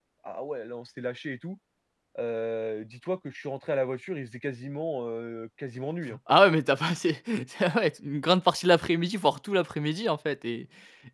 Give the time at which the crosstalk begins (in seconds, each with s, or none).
none